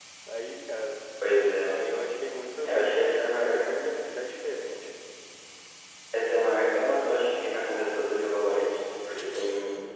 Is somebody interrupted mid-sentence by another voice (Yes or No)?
Yes